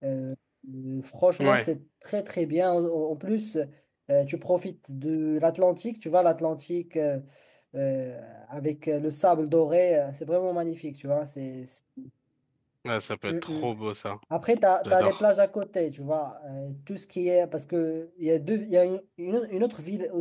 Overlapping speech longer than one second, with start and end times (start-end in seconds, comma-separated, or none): none